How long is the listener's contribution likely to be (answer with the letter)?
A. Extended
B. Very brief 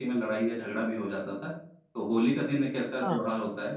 B